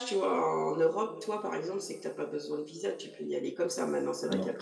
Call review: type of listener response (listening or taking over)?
listening